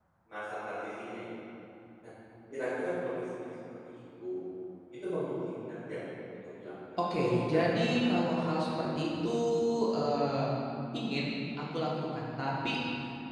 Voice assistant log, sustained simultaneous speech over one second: present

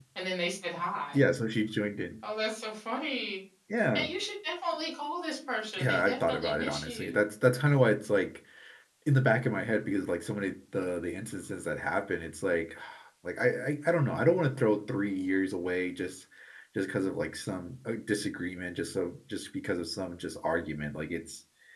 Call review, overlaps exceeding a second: present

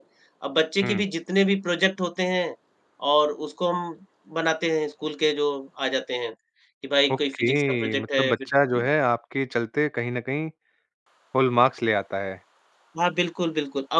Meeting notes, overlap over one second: present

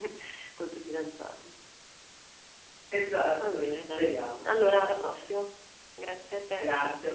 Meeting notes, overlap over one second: present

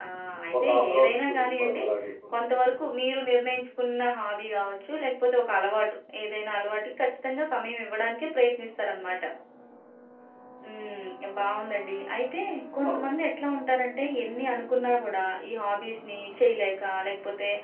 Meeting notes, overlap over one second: present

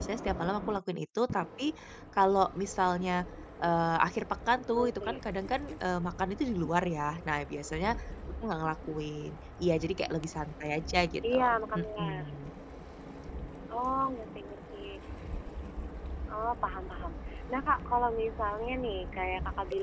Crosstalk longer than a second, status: none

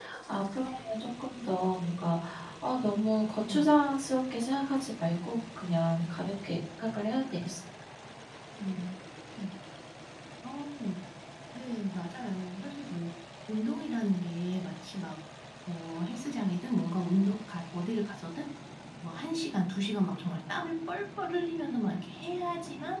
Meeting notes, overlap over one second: none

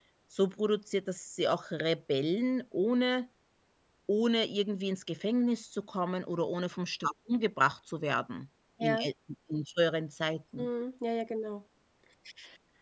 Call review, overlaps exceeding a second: none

